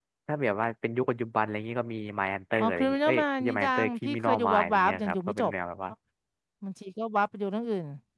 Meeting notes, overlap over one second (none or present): present